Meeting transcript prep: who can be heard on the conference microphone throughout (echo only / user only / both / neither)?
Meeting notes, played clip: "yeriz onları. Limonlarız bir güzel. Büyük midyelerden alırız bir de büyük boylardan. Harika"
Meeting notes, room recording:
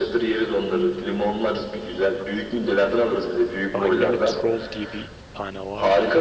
both